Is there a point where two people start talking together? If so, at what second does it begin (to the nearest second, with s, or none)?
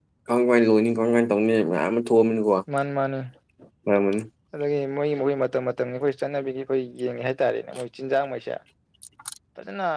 none